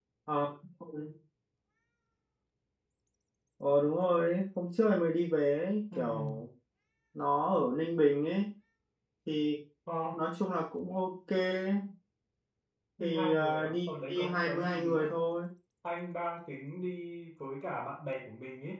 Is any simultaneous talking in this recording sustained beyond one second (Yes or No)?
Yes